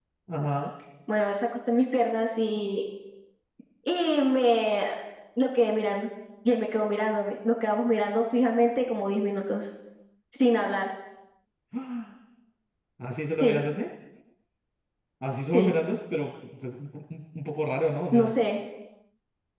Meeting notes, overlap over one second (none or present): none